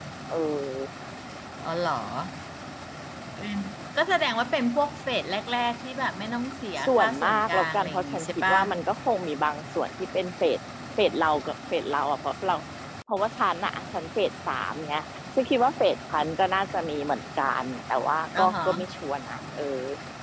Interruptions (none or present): present